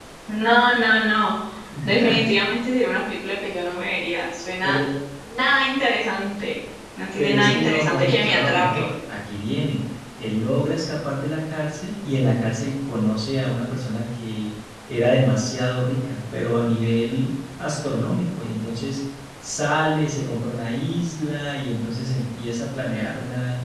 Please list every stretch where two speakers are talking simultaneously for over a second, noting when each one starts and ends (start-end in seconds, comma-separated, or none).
7.2-8.9